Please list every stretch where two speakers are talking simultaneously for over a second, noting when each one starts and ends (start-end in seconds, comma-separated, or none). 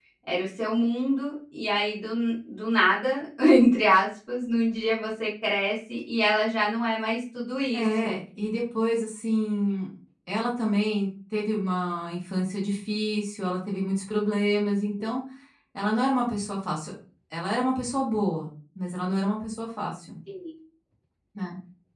none